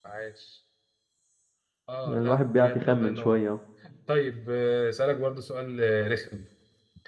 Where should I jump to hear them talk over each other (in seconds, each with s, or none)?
2.0 s